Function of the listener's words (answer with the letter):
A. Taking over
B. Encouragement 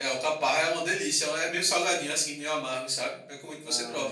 A